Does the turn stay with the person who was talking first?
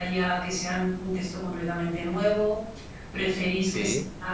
Yes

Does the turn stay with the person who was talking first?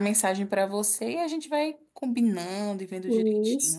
No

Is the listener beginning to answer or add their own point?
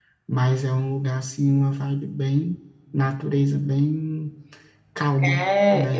Yes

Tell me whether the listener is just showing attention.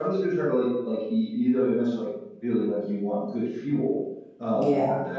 Yes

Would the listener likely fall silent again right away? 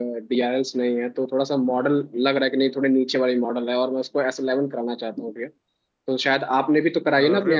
Yes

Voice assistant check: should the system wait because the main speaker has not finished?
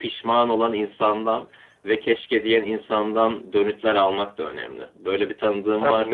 No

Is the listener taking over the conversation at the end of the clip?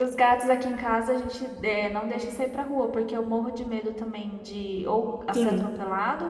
No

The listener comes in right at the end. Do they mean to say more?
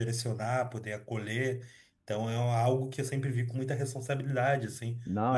Yes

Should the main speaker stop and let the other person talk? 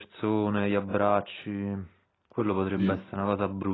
No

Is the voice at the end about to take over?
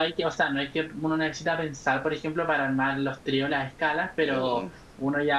No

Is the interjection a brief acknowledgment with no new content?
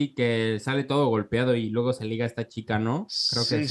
No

